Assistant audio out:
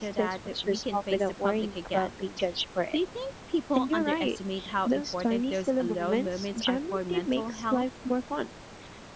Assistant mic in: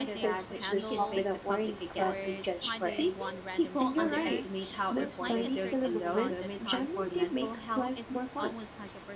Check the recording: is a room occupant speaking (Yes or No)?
Yes